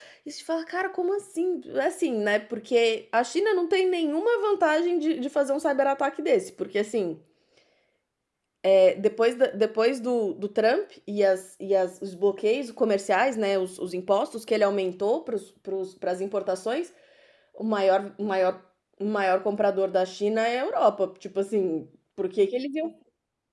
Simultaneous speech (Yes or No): No